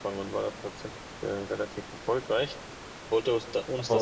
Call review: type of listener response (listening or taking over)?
listening